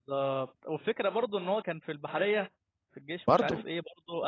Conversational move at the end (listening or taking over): listening